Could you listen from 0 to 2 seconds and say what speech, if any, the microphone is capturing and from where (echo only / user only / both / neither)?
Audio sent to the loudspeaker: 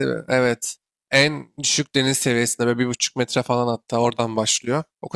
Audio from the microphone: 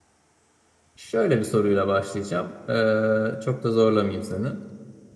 user only